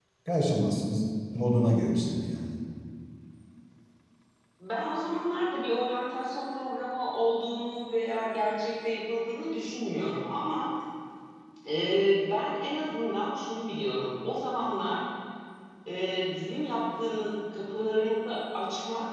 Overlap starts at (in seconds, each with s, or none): none